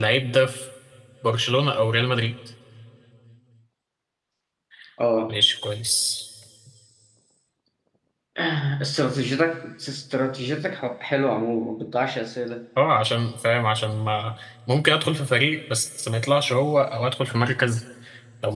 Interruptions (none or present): none